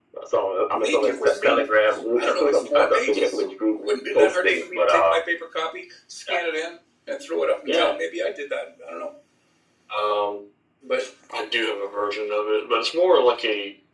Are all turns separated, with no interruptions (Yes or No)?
No